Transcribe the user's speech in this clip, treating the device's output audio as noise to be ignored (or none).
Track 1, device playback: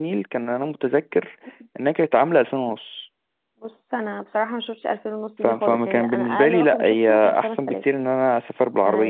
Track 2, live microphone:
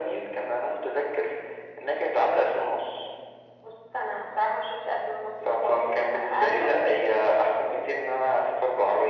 none